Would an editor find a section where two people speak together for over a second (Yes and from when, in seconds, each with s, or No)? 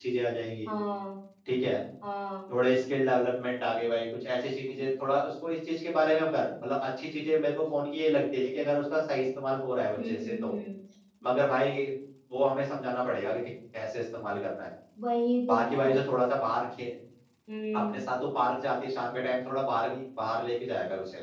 No